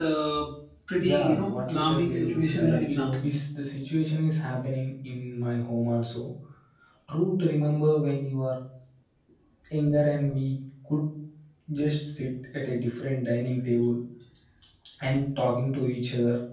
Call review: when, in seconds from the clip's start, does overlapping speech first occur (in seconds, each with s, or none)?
1.0 s